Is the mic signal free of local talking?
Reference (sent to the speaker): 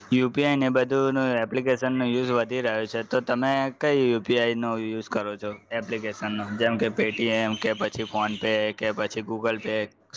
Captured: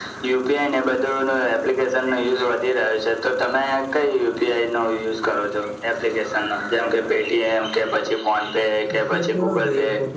No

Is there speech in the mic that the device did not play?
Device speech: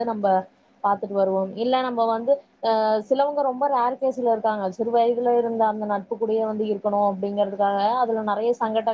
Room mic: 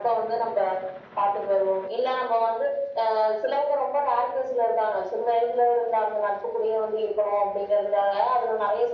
No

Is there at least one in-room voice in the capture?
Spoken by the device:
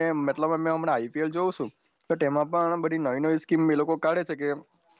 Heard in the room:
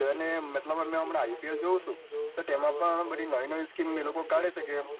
Yes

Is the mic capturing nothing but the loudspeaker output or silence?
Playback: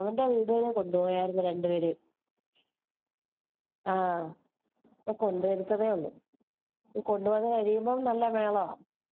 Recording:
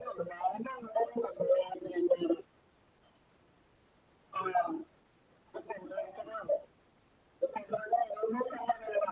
Yes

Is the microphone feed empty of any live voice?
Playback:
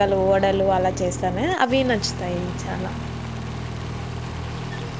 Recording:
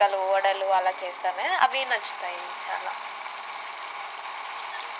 Yes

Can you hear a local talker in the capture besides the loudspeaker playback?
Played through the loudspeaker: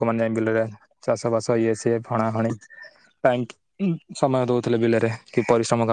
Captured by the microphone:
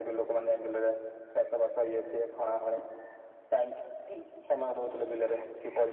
No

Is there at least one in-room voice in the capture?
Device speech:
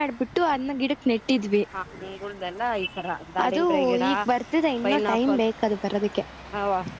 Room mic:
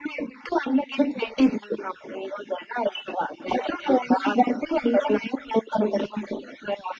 No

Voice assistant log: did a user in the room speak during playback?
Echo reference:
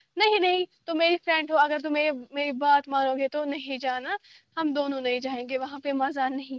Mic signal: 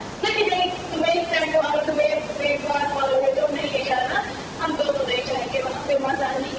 No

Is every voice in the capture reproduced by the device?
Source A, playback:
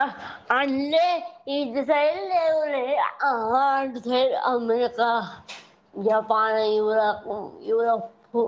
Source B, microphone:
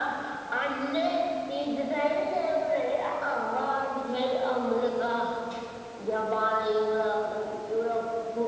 Yes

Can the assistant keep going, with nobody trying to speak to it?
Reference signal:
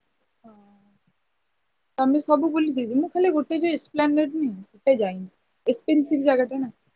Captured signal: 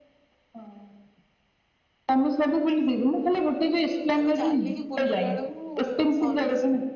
No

